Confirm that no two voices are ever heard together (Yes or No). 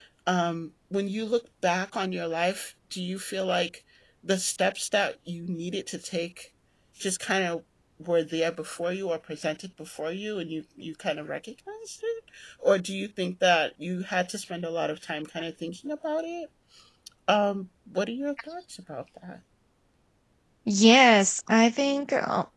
Yes